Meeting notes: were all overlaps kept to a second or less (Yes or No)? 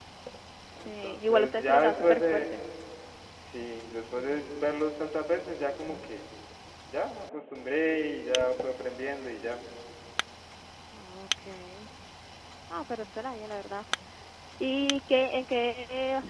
No